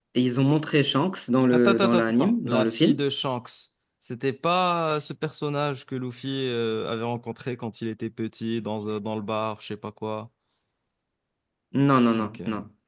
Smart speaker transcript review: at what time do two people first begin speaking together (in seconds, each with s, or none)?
1.5 s